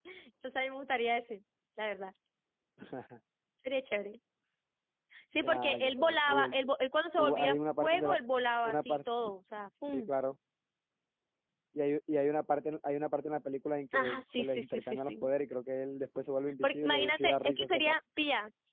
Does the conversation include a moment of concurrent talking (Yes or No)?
Yes